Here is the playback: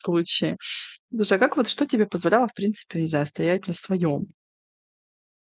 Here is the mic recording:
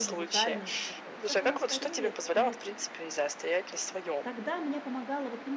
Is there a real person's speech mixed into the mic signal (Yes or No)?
Yes